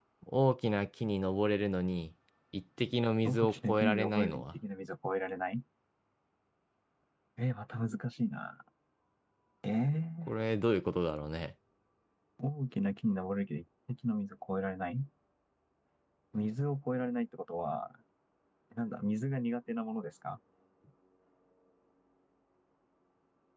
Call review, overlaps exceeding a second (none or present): present